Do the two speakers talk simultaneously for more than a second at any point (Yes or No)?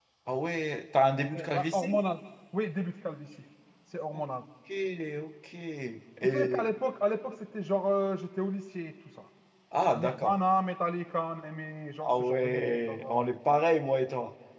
Yes